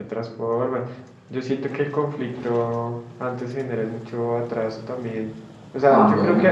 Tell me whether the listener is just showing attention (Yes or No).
Yes